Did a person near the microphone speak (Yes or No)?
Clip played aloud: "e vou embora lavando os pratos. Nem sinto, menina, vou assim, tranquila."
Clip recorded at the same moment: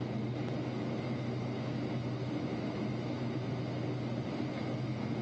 No